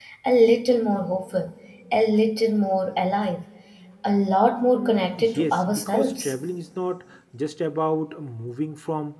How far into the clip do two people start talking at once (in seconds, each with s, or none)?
4.6 s